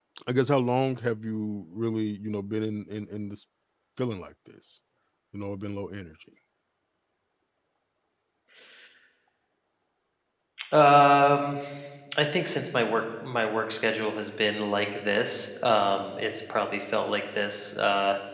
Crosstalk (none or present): none